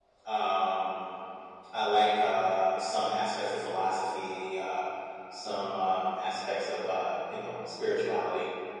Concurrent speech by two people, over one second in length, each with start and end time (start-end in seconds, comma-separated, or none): none